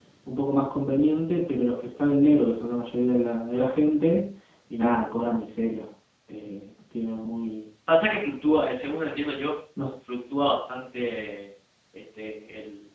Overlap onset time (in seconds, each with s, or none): none